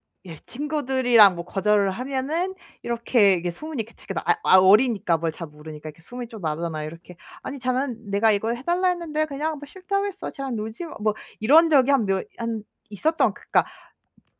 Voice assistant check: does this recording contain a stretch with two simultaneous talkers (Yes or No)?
No